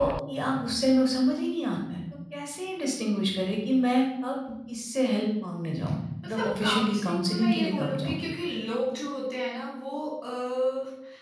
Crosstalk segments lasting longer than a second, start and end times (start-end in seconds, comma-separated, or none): 6.3-8.2